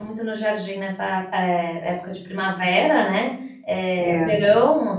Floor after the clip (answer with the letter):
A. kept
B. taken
A